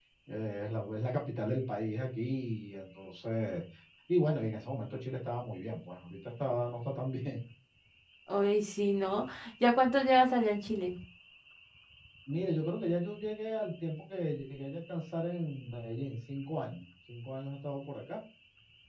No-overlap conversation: Yes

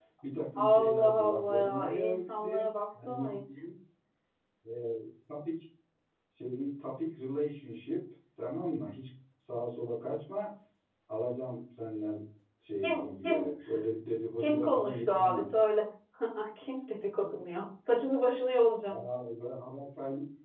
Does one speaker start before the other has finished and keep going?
Yes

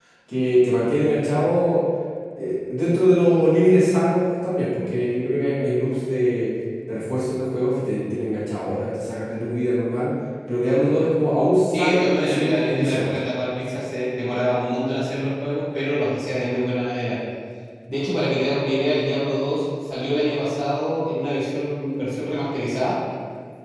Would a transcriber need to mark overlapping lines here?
Yes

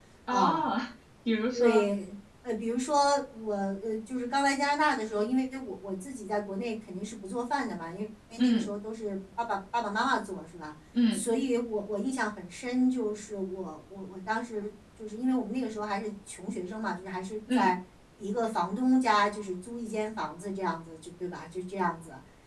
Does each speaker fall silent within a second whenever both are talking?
Yes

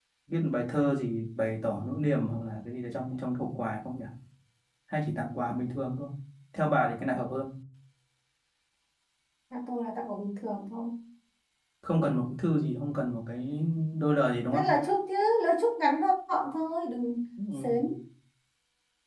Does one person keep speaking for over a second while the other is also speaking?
No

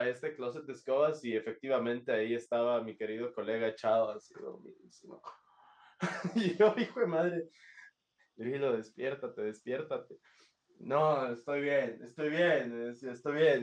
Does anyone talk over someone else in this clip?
No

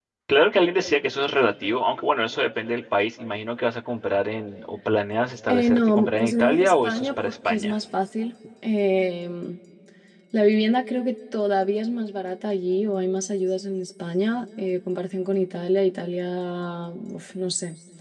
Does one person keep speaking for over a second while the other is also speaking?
Yes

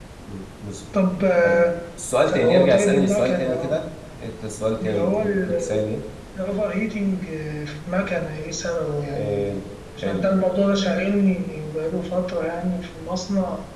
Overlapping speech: Yes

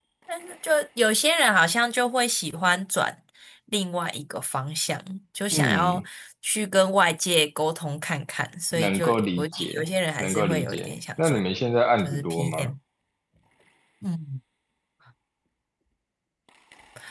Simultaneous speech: Yes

